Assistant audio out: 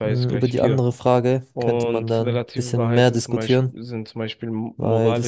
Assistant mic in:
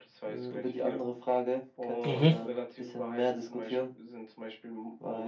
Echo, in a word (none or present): present